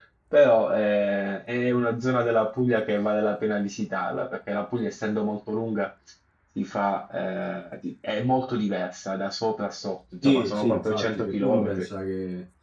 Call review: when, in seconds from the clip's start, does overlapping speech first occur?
10.2 s

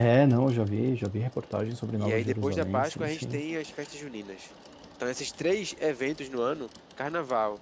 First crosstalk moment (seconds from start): 2.0 s

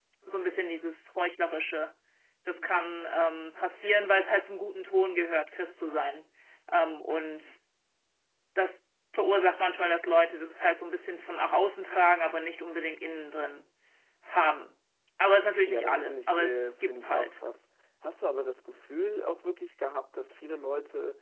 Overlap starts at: 15.7 s

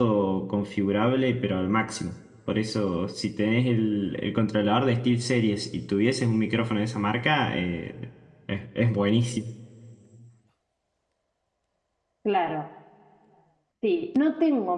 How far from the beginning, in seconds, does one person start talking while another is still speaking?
none

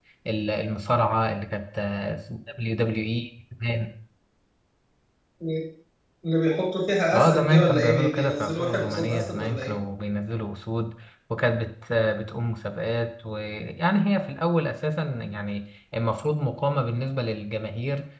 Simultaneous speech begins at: 7.1 s

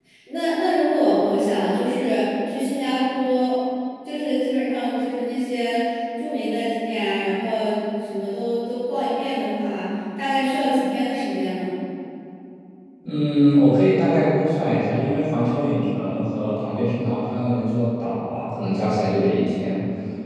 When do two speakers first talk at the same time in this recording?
none

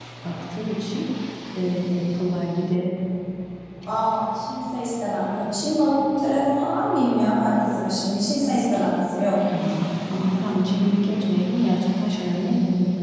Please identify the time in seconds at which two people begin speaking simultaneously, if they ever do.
none

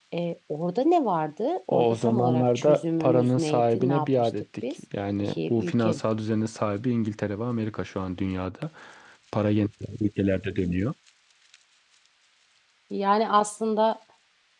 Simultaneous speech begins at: 1.7 s

